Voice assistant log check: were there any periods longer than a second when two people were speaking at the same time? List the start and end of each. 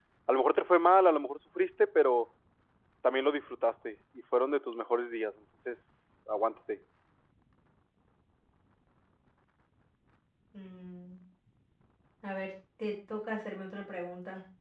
none

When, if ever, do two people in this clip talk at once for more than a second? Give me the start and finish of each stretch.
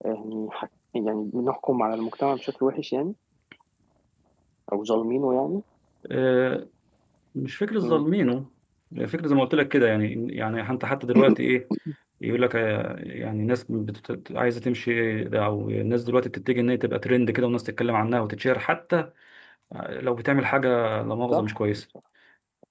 none

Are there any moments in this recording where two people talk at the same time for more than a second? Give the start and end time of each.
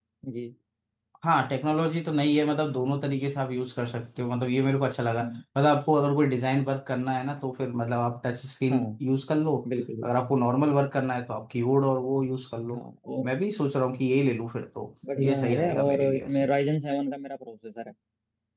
15.2-16.5

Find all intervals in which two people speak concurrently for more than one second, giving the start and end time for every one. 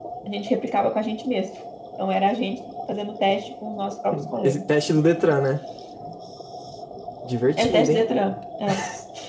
none

